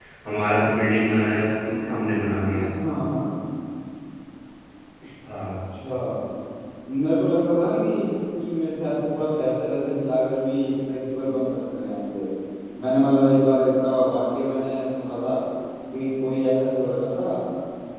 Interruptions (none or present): none